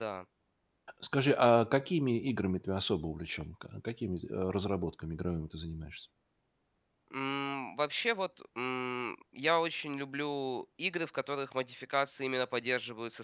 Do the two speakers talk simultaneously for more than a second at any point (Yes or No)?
No